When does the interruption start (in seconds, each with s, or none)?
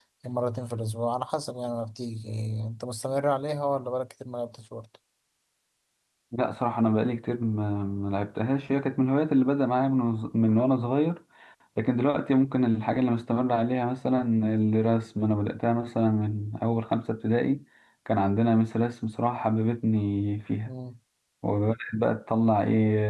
none